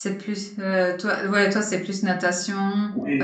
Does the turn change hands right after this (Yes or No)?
Yes